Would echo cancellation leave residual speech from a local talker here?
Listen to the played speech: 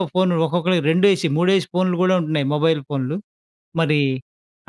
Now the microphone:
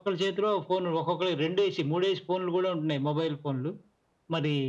No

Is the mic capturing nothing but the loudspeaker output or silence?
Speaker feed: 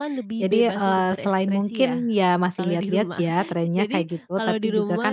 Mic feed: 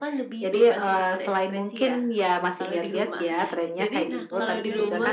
No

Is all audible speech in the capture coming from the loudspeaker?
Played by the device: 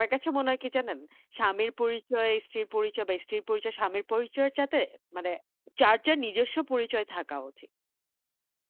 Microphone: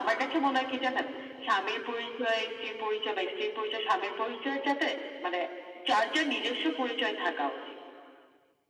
Yes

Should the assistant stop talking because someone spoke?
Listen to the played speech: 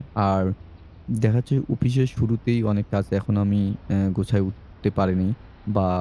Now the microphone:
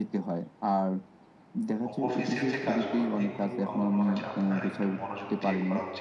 Yes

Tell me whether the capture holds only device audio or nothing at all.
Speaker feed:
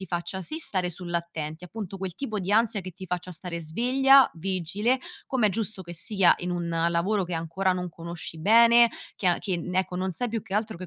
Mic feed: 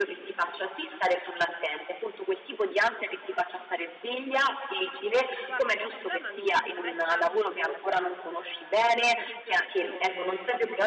No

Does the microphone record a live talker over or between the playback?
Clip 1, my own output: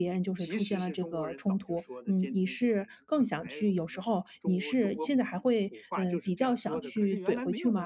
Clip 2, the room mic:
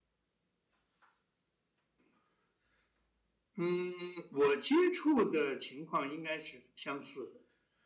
Yes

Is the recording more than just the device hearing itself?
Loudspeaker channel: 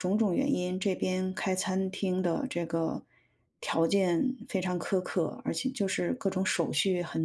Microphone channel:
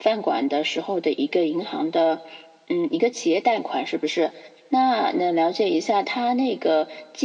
Yes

